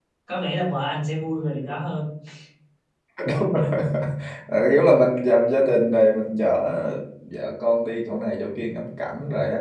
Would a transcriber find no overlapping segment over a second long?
Yes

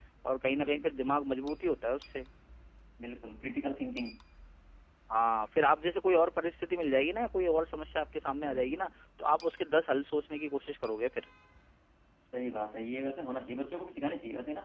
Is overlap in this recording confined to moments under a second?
Yes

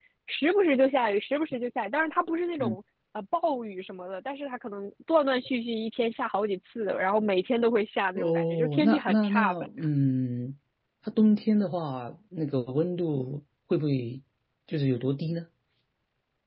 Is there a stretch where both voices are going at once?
Yes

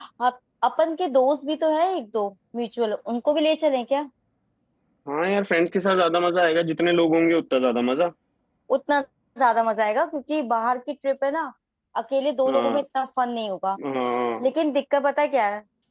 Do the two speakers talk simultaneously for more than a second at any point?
No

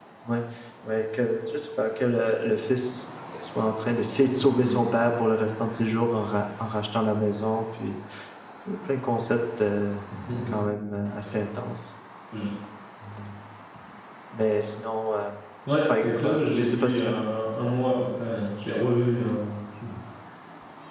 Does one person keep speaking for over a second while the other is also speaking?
Yes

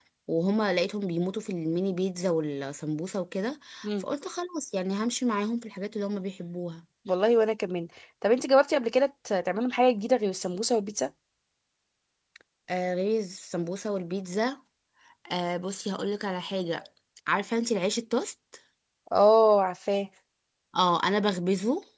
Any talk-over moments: No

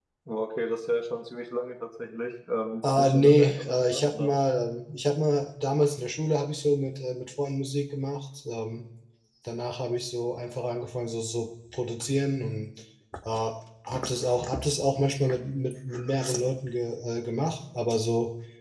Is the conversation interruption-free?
No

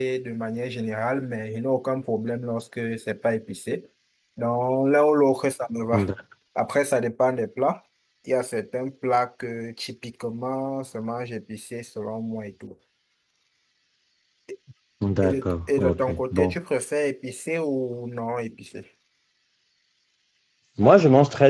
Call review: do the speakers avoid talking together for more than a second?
No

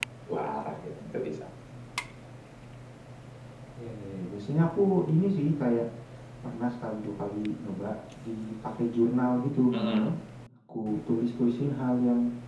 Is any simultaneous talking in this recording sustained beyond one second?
No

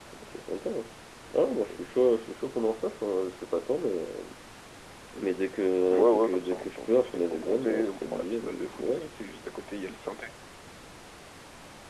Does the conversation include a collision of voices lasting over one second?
Yes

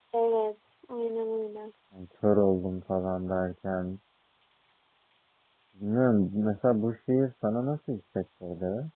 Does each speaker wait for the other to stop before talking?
Yes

